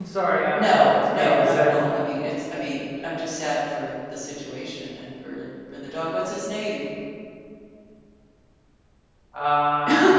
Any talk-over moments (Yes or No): Yes